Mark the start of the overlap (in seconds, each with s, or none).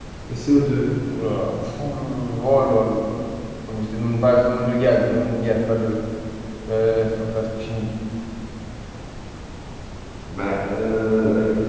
none